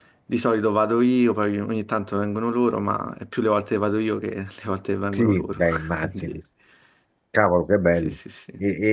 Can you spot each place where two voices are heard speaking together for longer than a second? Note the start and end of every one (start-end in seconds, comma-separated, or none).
5.1-6.4